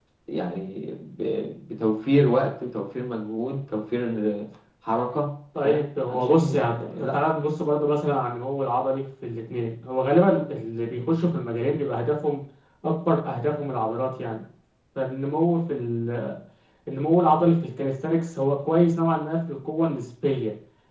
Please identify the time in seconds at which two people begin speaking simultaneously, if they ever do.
5.6 s

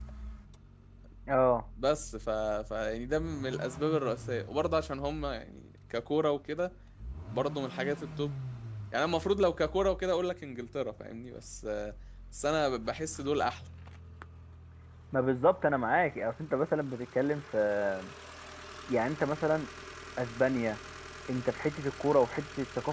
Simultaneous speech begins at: none

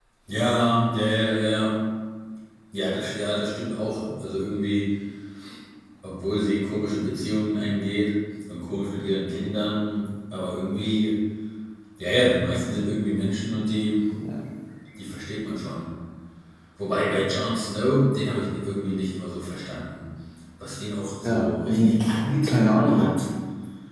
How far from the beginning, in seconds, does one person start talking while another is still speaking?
21.2 s

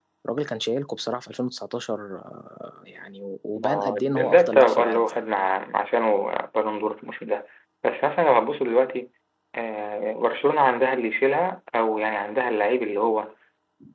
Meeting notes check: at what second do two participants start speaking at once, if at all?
3.6 s

